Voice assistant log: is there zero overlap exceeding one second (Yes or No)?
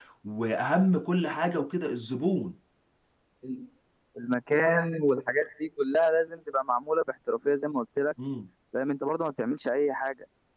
Yes